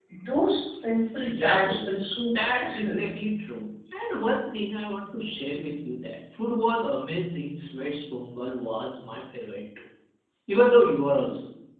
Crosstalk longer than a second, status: present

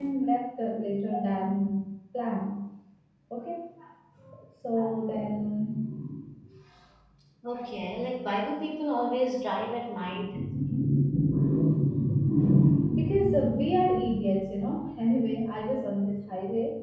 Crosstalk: none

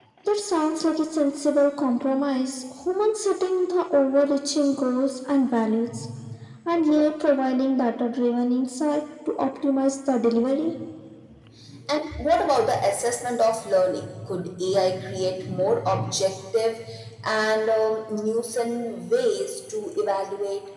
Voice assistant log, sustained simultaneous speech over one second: none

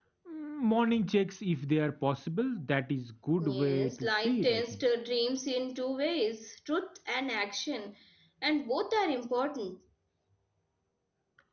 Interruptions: present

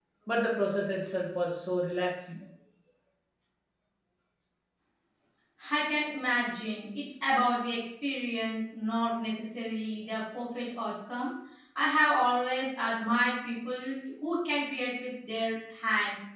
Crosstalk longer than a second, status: none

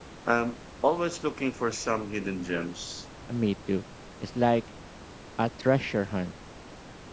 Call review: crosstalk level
none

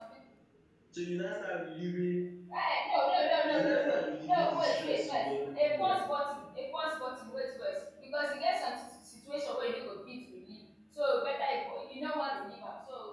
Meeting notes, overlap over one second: present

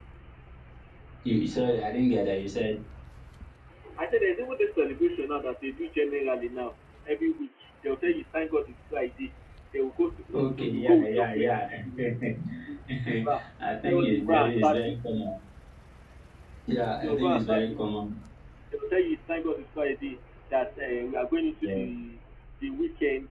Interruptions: present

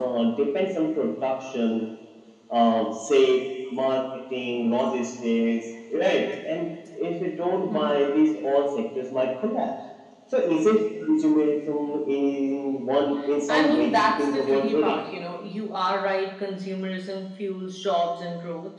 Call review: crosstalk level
present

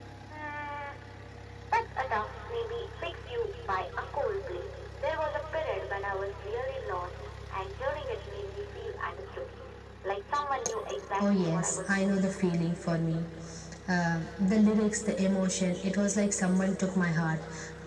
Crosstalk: present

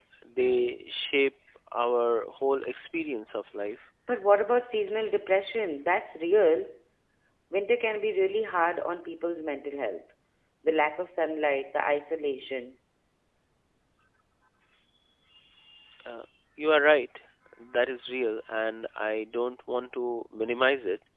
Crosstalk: none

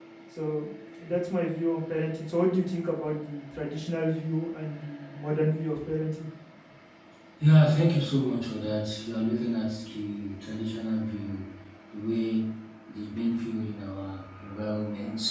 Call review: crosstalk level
none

